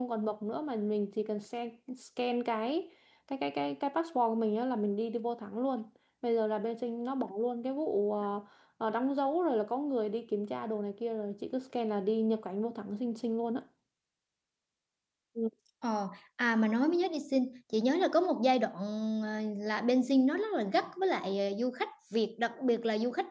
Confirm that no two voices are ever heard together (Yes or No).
Yes